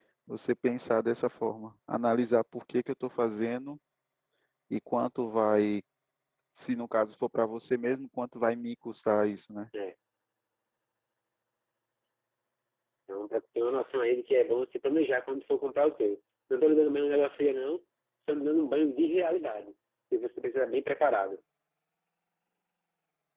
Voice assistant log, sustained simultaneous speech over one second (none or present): none